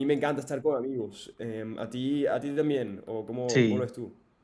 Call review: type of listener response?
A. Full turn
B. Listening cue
A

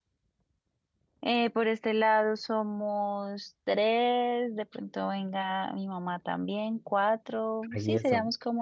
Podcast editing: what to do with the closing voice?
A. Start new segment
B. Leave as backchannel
A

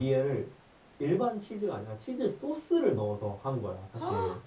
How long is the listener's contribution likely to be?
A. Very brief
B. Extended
B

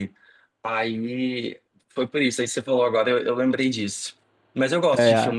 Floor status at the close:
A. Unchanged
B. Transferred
A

